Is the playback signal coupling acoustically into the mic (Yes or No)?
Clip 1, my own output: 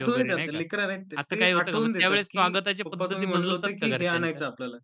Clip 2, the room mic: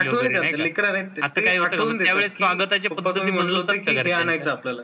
Yes